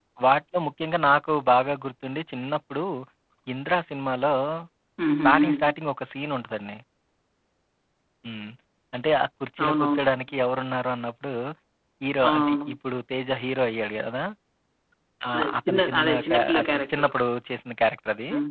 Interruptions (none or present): present